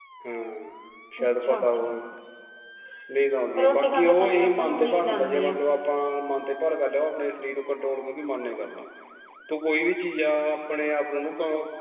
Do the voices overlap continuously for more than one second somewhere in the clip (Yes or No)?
Yes